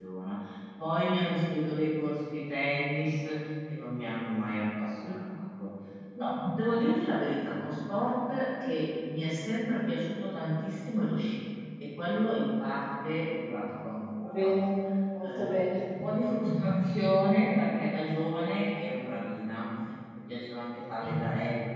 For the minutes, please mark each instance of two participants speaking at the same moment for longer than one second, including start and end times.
none

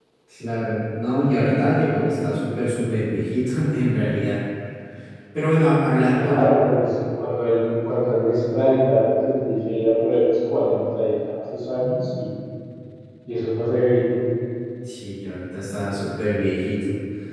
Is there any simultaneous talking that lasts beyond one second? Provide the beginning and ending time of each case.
none

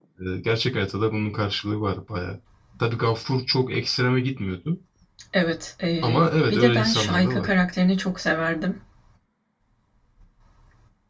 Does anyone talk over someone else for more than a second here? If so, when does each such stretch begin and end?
6.0-7.5

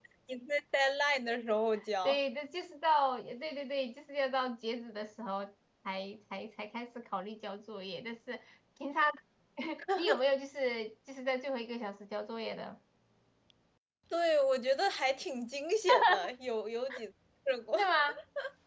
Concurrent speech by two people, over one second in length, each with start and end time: none

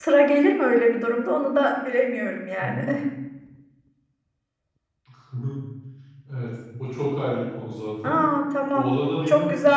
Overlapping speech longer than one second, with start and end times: none

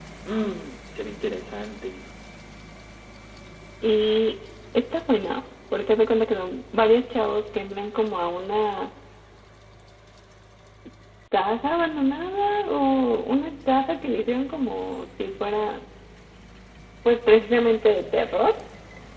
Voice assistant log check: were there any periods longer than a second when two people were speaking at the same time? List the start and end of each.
none

